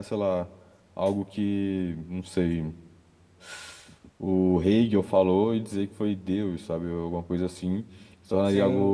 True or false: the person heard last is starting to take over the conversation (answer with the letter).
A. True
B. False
A